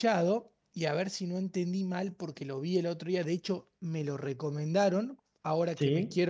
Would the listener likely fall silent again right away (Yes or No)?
Yes